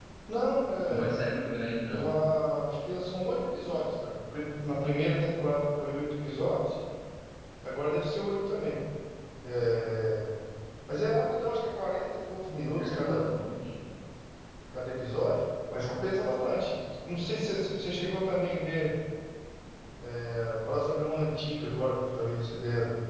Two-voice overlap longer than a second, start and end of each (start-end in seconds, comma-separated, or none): none